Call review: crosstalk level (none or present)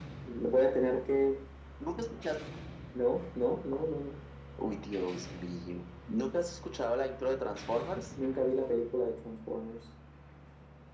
none